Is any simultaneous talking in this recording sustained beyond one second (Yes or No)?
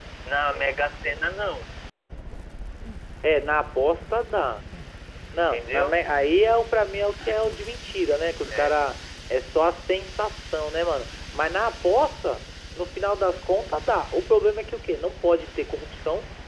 No